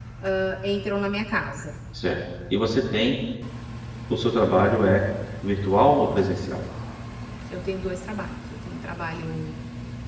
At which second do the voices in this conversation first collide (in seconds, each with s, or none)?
none